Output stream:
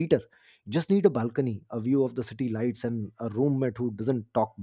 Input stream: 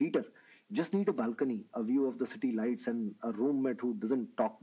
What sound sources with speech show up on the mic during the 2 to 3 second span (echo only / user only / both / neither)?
echo only